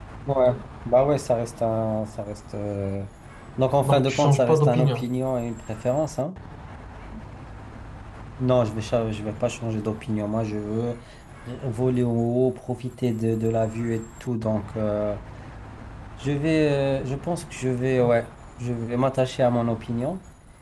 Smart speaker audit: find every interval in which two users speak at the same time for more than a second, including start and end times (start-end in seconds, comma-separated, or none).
3.8-5.1